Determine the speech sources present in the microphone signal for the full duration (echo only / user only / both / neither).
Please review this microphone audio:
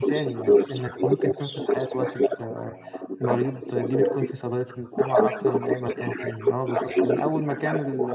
both